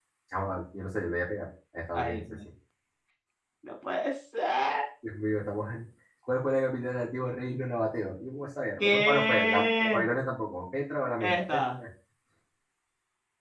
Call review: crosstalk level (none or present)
present